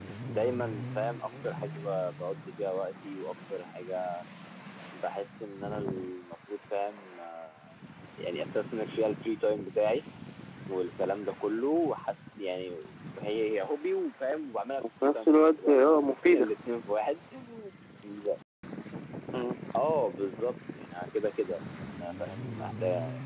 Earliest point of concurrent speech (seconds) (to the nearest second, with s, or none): 15 s